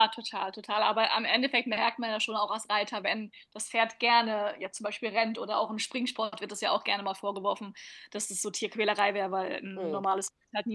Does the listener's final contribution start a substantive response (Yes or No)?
No